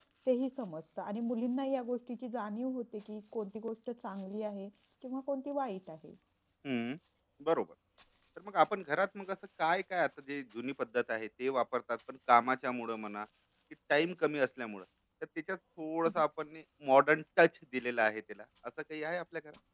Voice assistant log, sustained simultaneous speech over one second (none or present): none